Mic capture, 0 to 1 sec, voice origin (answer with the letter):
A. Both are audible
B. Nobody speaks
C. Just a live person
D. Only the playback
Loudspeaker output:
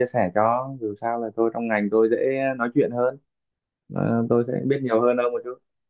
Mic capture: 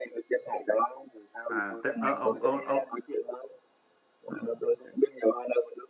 D